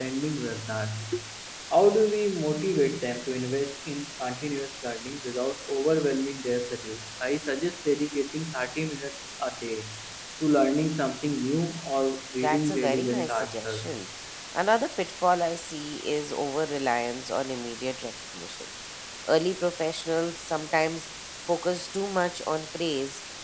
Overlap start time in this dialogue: 12 s

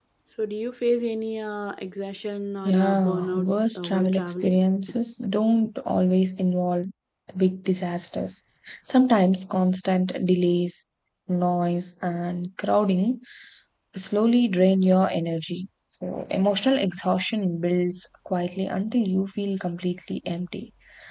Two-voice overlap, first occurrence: 3 s

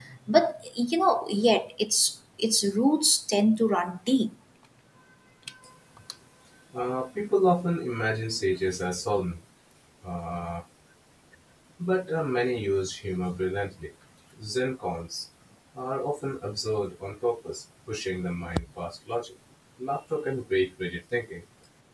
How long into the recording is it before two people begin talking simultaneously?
none

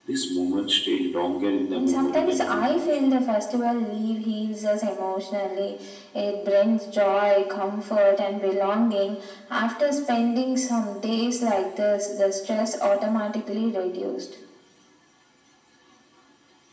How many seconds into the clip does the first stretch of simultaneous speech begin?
2 s

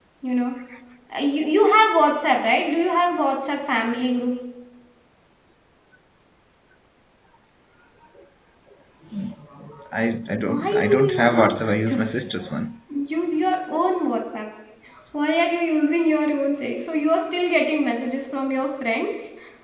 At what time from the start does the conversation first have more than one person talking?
10 s

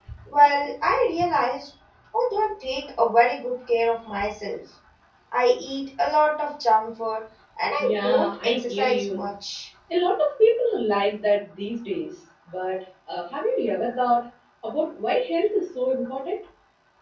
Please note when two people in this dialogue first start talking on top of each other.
8 s

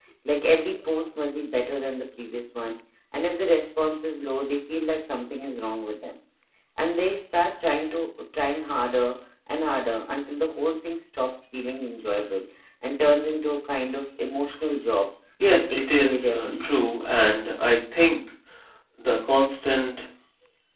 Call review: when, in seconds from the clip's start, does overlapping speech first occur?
15 s

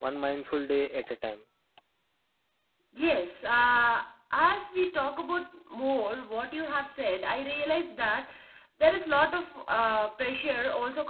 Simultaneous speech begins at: none

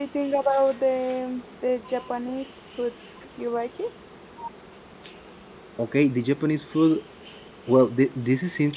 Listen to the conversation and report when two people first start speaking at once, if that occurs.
none

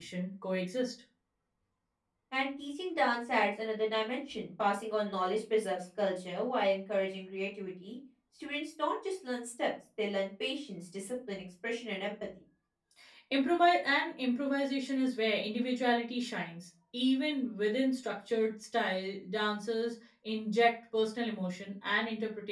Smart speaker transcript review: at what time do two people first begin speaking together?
none

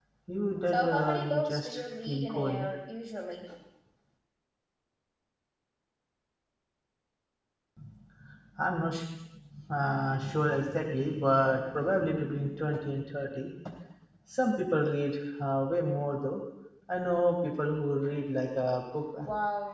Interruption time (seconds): 1 s

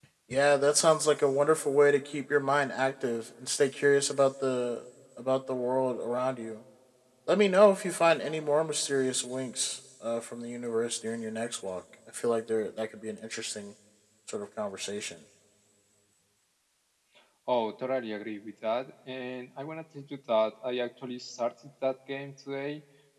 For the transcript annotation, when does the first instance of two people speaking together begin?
none

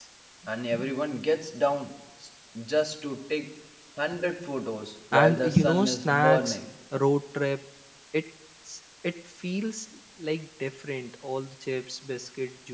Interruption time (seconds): 5 s

